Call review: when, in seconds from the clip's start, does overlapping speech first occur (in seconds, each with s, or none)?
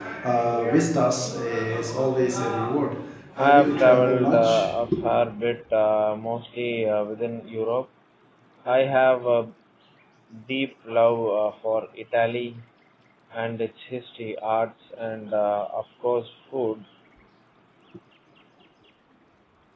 3.4 s